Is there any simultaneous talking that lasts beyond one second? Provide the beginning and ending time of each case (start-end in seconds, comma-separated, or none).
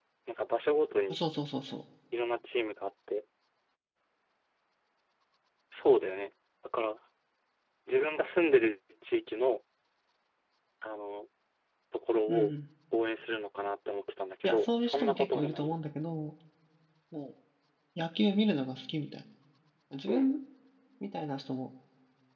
14.4-15.8